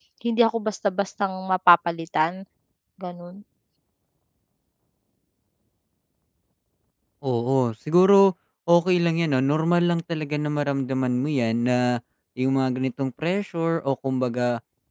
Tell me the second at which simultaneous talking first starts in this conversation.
none

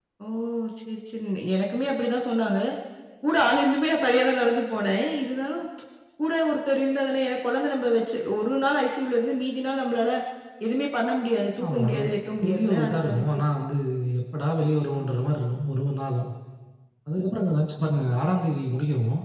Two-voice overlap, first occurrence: 11.6 s

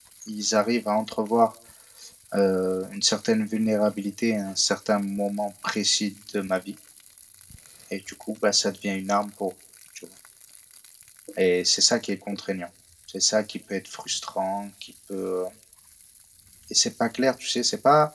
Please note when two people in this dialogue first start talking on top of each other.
none

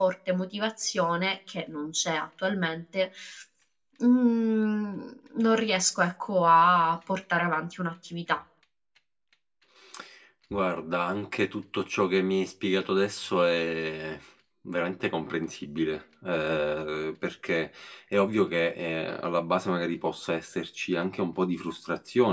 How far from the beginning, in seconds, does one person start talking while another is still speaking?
none

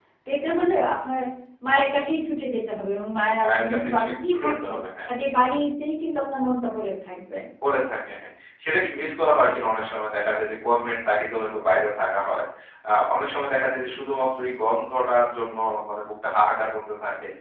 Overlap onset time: 3.4 s

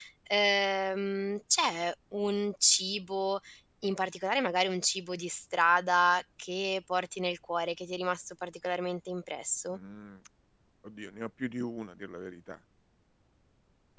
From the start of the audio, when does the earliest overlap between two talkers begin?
none

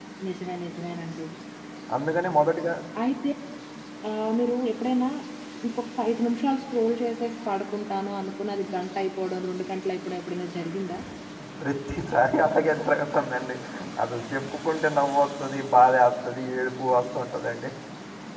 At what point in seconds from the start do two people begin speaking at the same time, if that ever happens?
none

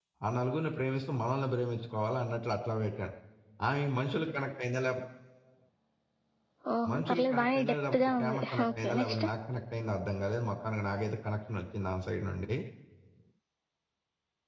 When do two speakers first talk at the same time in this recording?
6.9 s

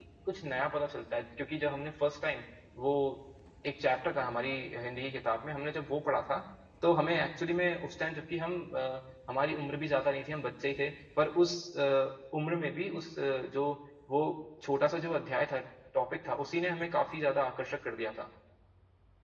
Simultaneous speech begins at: none

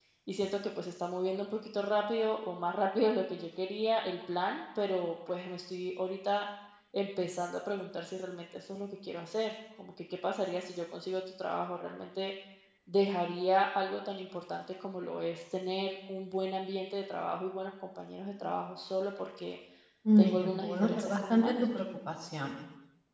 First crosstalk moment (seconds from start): 20.2 s

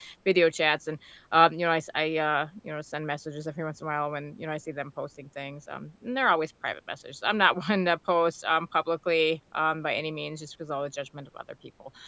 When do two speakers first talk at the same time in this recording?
none

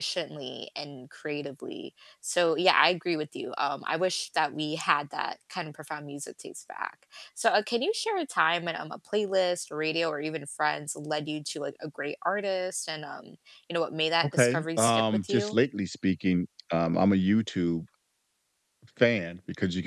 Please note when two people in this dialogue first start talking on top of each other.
14.2 s

